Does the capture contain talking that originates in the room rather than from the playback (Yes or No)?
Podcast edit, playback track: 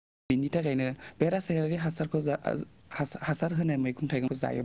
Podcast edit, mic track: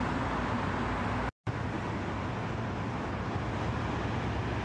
No